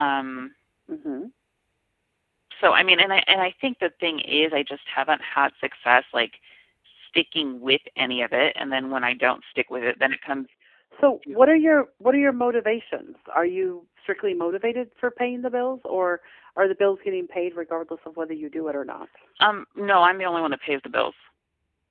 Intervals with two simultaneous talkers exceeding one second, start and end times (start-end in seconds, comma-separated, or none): none